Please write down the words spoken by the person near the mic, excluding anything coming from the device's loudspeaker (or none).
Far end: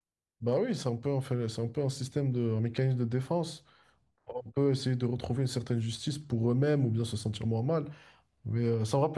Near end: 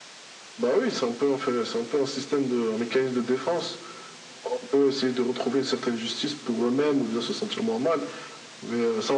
none